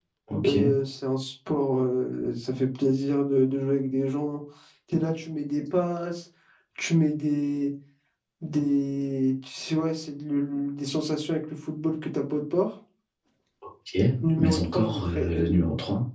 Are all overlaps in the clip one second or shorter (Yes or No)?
No